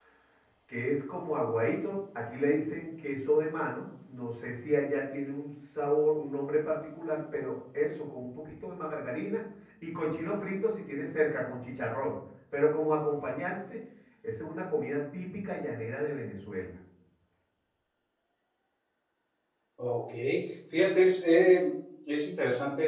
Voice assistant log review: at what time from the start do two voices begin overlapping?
none

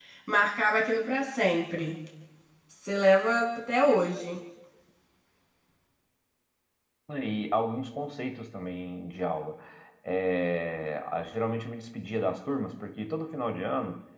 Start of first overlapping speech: none

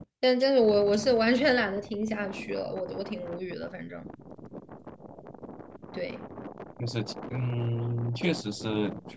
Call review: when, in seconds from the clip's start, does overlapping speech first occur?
none

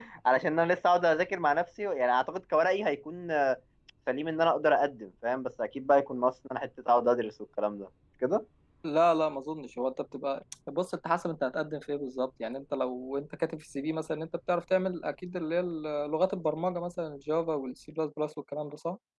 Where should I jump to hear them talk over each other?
none

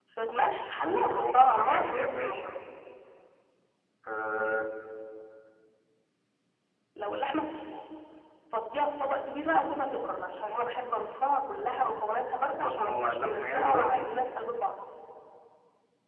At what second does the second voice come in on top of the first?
0.8 s

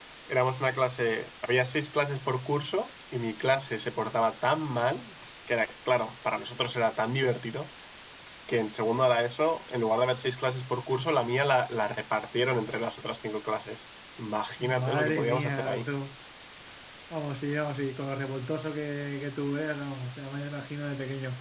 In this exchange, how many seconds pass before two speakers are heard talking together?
14.6 s

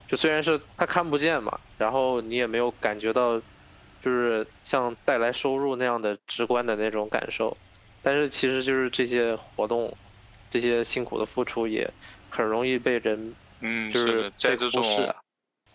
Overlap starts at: 13.9 s

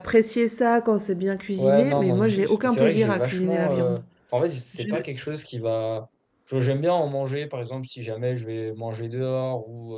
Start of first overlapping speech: 1.6 s

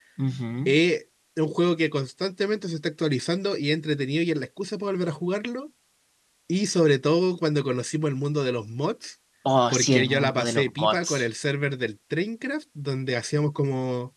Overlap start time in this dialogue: 9.7 s

